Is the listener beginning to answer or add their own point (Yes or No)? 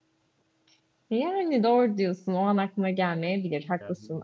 No